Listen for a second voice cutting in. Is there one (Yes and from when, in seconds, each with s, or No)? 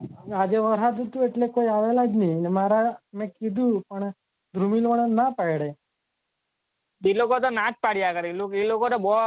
No